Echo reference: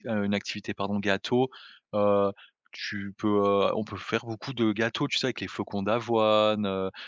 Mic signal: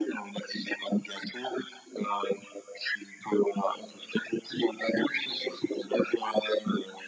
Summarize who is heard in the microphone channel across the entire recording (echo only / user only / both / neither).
echo only